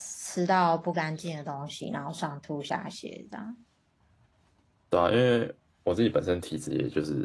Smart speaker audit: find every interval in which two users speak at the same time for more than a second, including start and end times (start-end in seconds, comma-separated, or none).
none